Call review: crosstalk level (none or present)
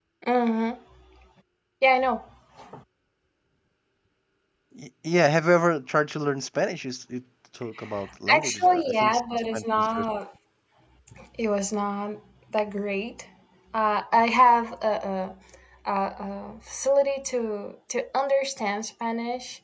present